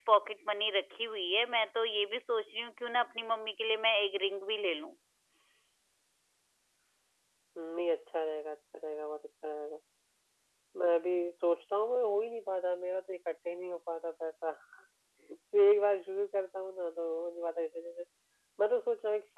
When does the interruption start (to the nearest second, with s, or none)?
none